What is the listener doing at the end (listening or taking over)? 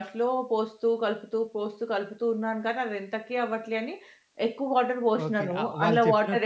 taking over